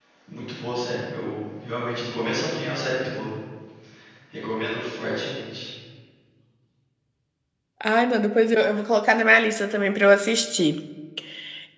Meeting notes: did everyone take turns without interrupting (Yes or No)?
Yes